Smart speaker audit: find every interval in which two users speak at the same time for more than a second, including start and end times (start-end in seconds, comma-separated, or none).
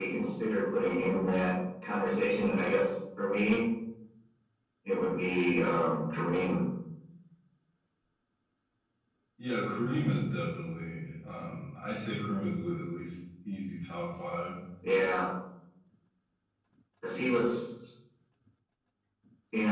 none